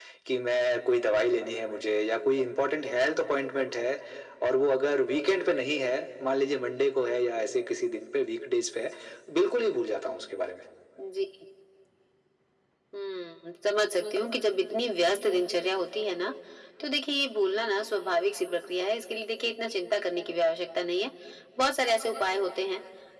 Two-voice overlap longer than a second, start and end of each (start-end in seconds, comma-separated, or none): none